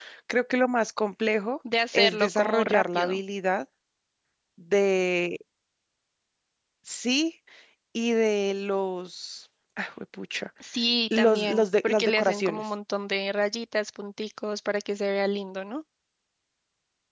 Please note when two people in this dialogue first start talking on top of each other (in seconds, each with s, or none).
1.9 s